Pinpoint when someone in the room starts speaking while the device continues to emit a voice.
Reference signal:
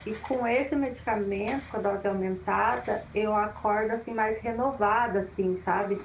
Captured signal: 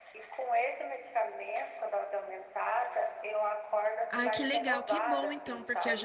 4 s

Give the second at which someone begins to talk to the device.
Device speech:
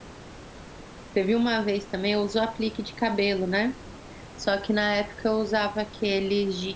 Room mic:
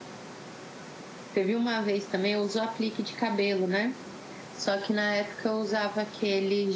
none

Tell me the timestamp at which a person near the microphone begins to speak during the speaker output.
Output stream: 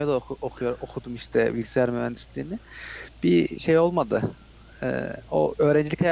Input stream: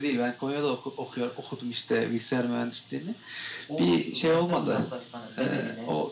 4 s

